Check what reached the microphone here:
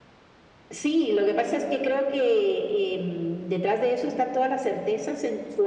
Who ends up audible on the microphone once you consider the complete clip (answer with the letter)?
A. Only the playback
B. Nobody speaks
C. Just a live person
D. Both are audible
A